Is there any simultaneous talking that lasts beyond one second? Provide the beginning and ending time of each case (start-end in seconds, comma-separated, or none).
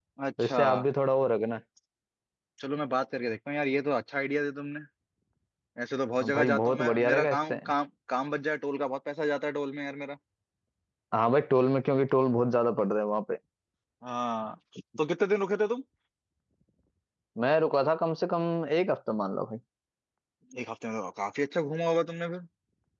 6.2-7.5